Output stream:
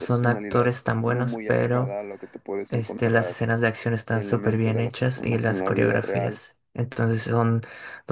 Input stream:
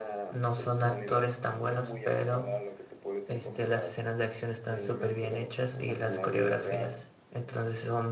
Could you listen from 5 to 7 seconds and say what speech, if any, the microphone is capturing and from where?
echo only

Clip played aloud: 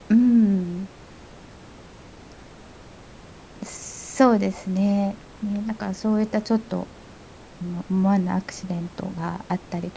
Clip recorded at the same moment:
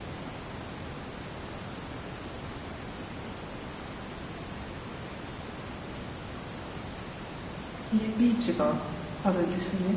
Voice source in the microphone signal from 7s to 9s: user only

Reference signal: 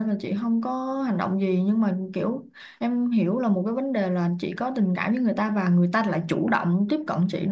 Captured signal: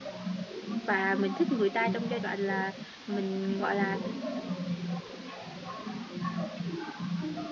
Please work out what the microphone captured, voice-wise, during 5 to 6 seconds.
echo only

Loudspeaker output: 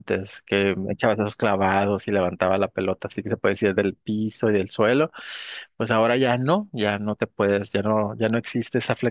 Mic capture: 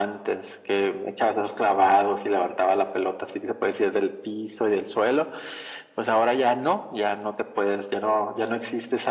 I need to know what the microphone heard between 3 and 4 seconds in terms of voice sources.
echo only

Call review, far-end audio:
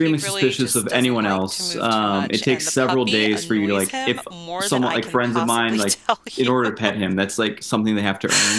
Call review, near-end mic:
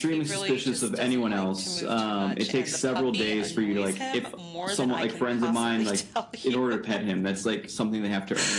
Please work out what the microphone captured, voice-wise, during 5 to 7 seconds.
echo only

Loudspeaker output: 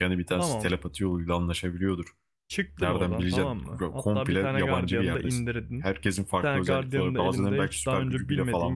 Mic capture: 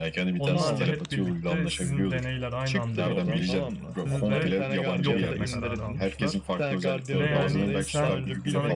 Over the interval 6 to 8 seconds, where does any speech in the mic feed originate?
both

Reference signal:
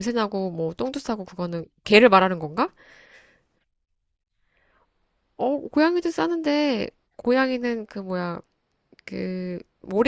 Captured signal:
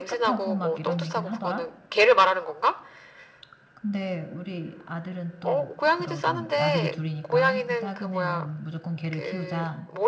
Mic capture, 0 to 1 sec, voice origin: both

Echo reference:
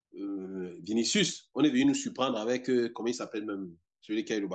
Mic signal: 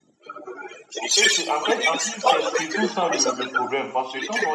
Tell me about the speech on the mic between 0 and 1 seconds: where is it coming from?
echo only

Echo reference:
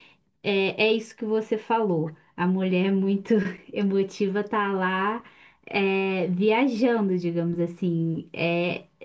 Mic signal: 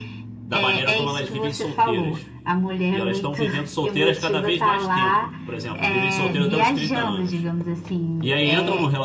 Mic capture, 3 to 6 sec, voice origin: both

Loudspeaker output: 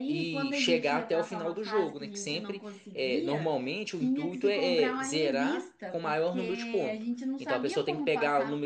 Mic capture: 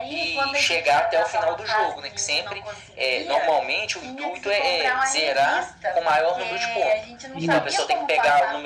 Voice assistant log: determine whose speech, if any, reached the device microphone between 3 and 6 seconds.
echo only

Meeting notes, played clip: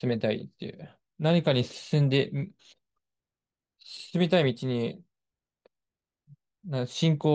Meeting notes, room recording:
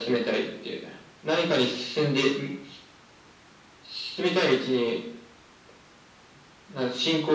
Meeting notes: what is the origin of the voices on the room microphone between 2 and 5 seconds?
echo only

